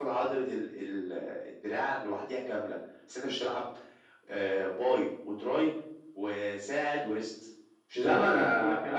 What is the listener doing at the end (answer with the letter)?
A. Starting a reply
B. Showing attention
A